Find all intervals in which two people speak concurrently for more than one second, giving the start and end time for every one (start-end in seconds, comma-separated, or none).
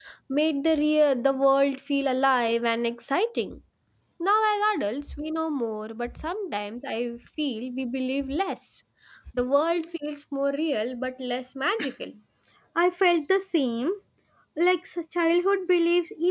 none